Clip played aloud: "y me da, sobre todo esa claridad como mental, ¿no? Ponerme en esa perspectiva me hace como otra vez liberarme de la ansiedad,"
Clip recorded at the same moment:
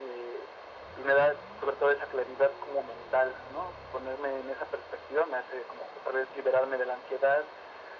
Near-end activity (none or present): none